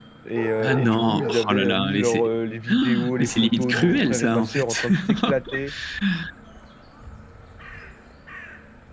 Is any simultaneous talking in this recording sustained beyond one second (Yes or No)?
Yes